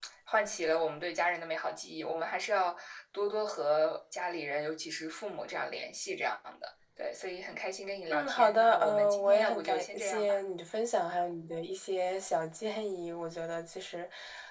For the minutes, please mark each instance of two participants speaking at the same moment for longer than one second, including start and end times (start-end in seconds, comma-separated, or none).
8.1-10.4